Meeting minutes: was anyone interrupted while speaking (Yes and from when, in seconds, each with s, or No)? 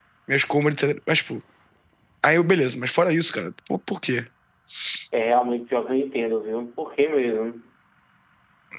No